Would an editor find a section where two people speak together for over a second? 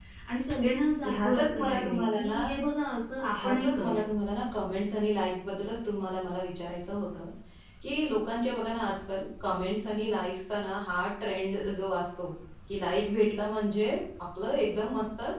Yes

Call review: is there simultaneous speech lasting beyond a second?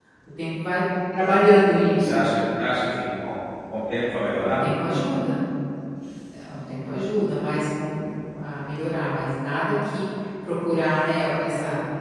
No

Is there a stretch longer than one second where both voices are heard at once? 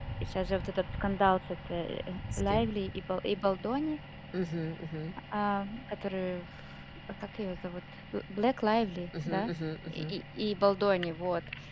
No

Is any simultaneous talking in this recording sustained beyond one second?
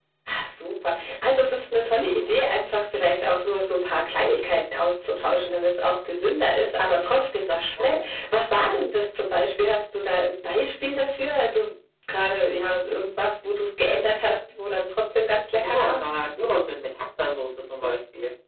No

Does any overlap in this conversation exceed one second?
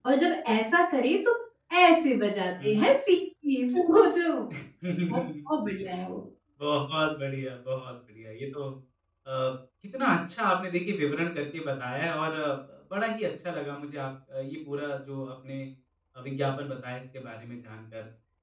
No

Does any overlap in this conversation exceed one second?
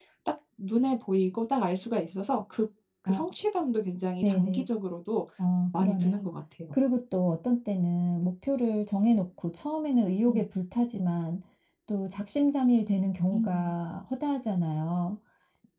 No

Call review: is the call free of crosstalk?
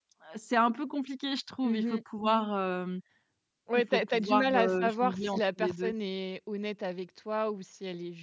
No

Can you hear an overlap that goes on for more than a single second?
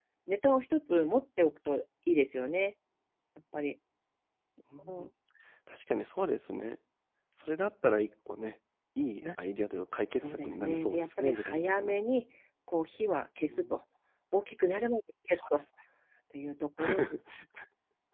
Yes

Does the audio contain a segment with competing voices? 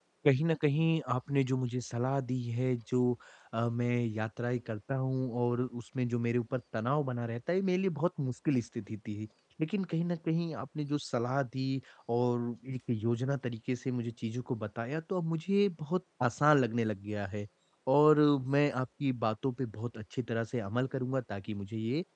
No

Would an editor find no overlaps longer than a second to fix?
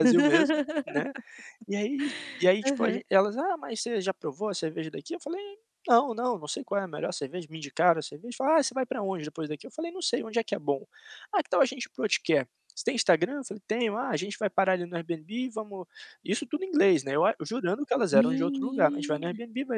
No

